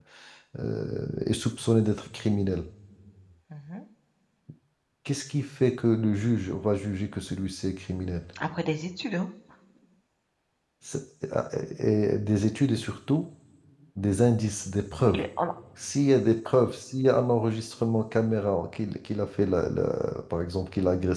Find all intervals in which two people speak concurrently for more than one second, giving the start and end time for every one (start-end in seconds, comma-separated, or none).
none